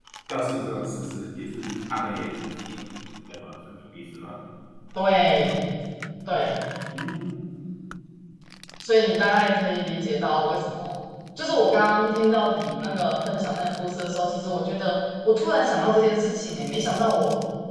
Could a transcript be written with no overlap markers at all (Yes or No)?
Yes